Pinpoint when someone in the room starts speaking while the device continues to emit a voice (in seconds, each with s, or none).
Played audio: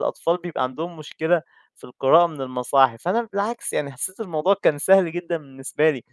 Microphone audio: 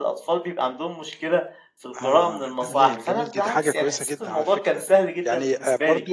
2.0 s